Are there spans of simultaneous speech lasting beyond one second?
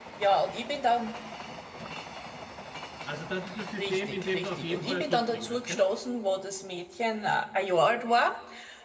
Yes, from 3.8 s

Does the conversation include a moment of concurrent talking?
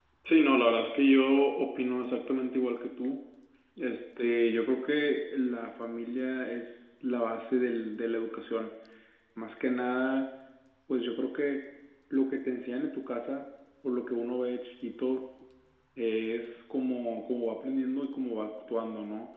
No

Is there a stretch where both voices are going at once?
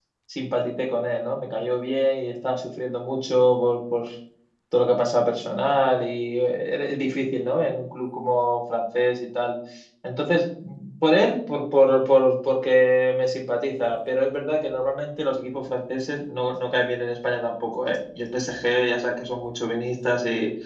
No

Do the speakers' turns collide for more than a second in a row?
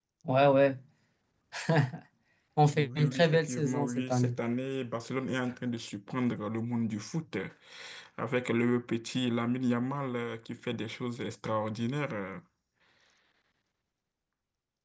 Yes, from 2.7 s

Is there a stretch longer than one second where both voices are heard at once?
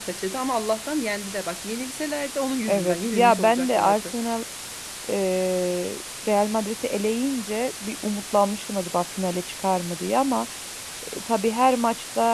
Yes, from 2.7 s

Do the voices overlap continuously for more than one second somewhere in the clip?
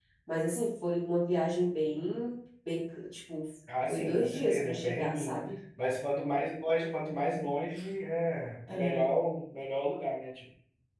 Yes, from 3.9 s

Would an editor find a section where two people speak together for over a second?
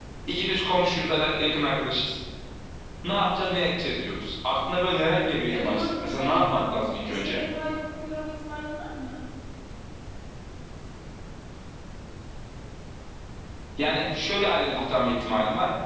Yes, from 5.5 s

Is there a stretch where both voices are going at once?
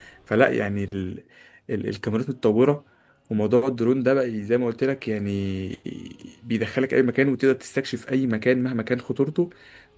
No

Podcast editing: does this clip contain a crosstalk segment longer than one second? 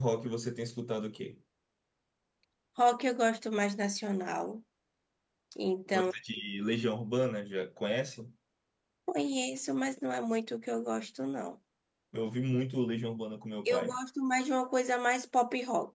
No

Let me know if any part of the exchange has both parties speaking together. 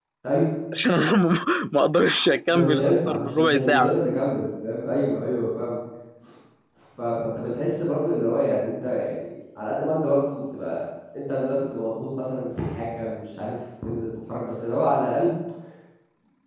Yes, from 2.5 s

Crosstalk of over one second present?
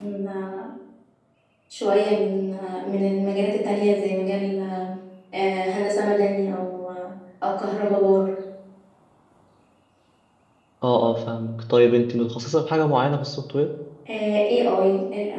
No

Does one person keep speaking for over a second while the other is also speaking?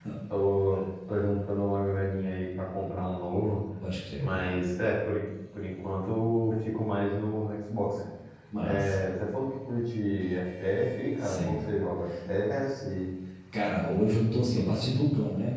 No

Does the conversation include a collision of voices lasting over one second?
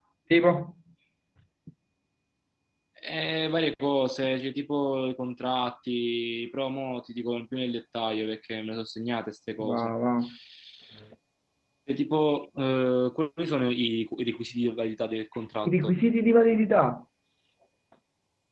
No

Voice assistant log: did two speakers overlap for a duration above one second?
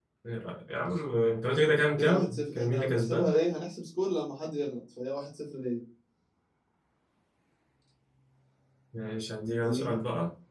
Yes, from 2.0 s

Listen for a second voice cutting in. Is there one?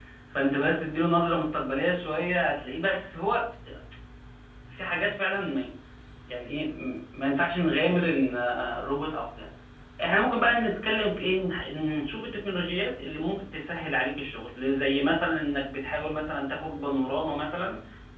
No

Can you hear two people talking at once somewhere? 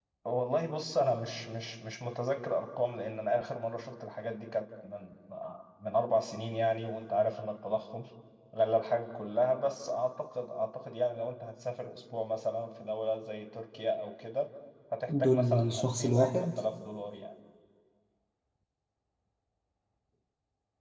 Yes, from 15.1 s

